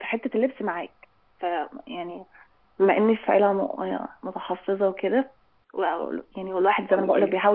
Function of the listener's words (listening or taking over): listening